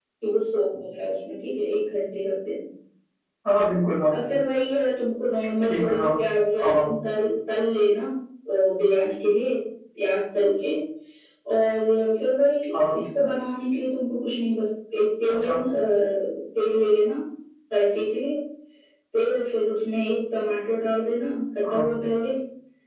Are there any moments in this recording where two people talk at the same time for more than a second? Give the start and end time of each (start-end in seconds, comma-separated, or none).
none